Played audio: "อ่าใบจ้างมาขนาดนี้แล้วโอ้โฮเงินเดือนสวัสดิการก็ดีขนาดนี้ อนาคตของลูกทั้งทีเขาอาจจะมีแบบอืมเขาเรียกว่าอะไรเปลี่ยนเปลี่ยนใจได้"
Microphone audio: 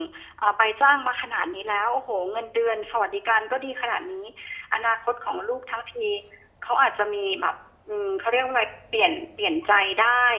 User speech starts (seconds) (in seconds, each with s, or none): none